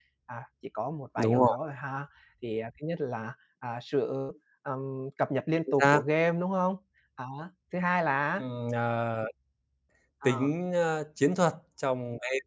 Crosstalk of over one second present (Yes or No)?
No